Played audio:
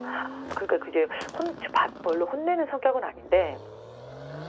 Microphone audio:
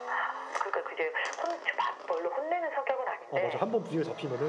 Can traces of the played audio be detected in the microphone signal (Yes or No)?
Yes